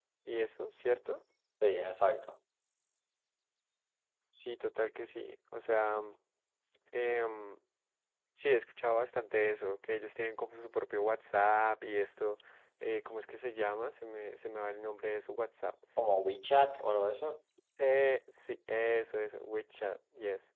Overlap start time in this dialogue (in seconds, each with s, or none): none